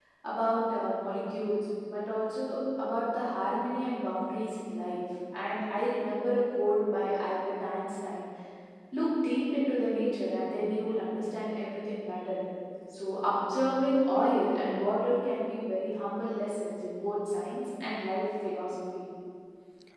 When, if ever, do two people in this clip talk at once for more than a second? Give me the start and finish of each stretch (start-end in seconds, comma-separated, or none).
none